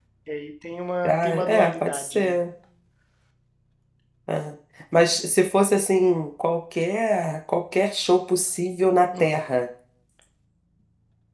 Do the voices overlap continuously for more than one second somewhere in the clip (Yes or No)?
Yes